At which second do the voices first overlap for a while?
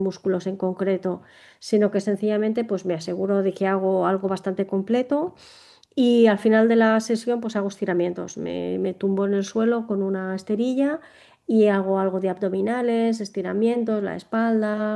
none

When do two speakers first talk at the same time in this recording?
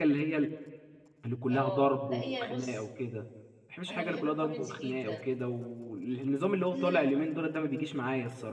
1.5 s

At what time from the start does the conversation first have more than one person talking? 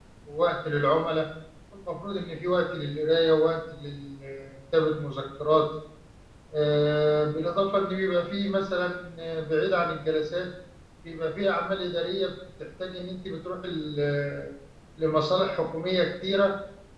none

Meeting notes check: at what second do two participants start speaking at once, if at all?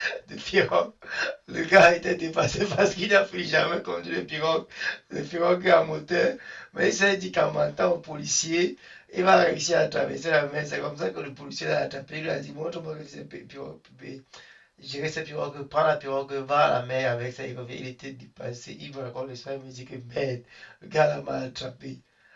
none

